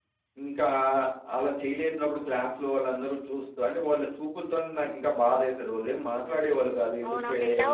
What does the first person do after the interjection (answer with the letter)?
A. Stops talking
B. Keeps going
A